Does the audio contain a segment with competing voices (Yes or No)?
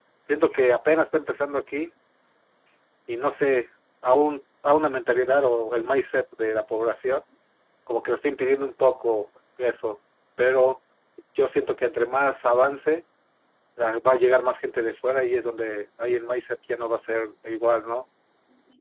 No